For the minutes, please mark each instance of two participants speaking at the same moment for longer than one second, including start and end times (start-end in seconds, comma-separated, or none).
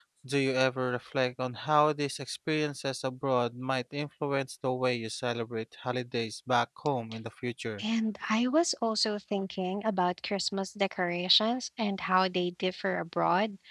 none